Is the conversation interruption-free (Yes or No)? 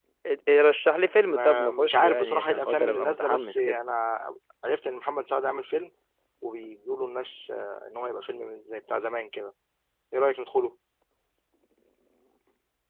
No